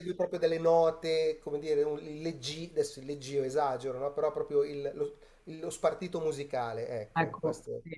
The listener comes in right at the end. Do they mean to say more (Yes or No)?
Yes